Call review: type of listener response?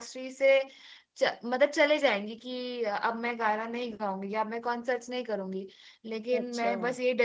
listening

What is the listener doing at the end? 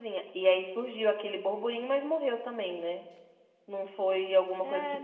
taking over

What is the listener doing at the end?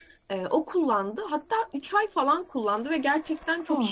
listening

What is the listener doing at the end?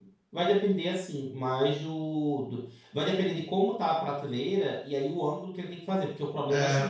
listening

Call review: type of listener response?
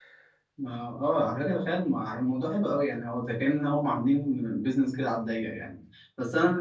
listening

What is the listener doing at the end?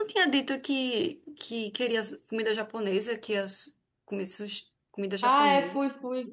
taking over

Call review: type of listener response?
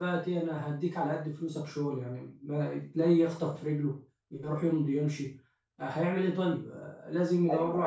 taking over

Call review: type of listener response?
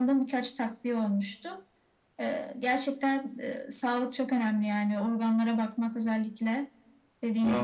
taking over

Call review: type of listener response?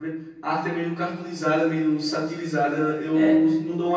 listening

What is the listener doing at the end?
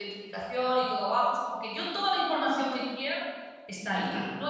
listening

